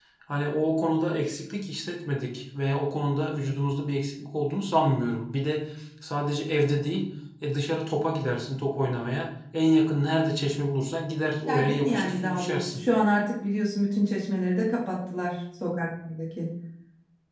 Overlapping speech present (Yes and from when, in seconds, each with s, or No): Yes, from 11.5 s